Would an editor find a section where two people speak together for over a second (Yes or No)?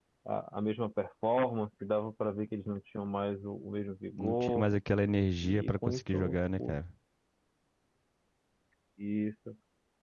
Yes